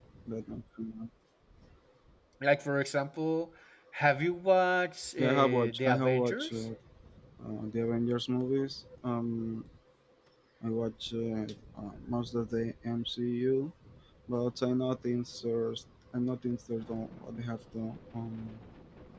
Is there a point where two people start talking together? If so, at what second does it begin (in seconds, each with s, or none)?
5.2 s